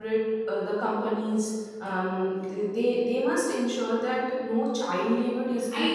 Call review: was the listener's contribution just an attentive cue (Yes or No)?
No